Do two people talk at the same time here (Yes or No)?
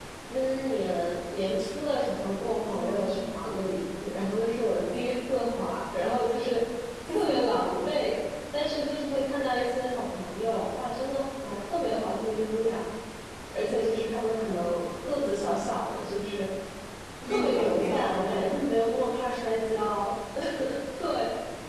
Yes